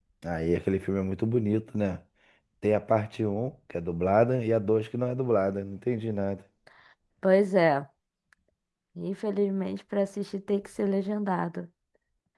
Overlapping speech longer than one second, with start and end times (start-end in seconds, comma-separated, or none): none